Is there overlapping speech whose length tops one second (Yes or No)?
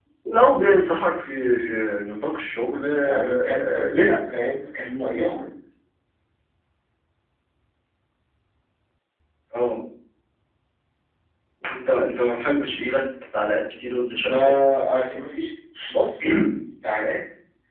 Yes